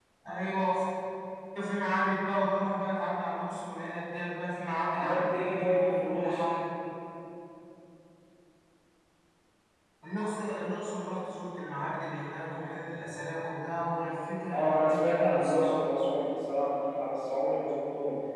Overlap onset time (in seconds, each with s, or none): 4.9 s